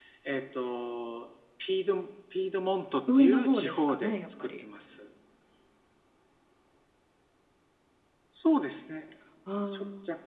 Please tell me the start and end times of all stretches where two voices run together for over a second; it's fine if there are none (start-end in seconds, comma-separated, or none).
3.1-4.6